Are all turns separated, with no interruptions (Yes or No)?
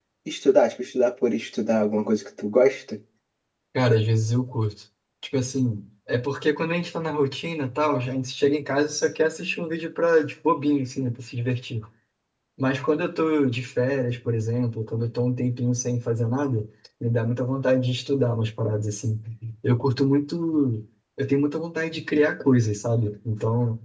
Yes